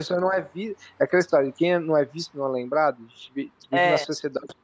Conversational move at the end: listening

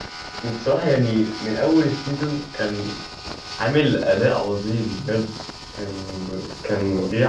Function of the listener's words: listening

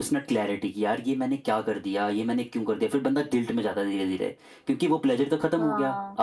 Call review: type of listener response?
listening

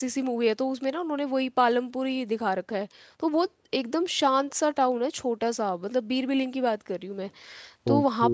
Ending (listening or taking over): listening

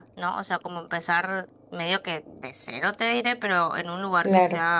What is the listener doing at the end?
listening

